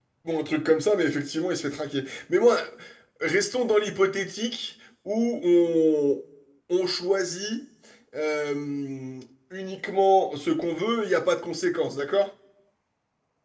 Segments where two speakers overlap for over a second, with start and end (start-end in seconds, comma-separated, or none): none